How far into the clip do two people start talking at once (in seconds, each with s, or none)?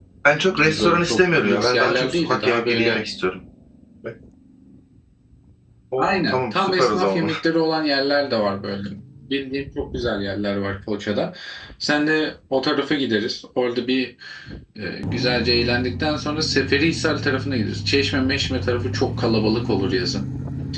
0.6 s